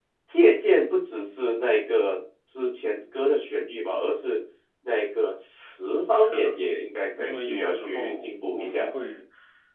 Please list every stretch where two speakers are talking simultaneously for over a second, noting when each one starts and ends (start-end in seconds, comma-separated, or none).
7.2-8.9